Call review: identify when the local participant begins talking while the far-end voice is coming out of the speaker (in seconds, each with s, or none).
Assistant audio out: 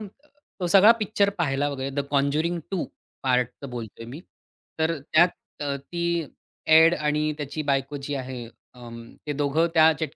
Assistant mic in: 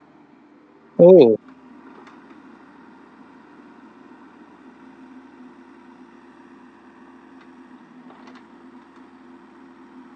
1.0 s